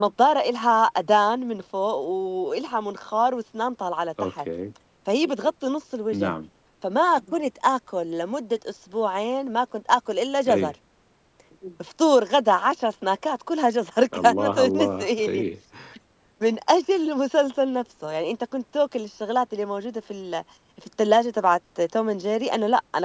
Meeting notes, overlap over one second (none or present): present